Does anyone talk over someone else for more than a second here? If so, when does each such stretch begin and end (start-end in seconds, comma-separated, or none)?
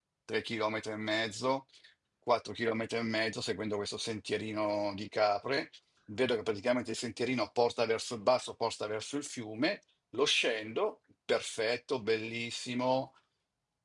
none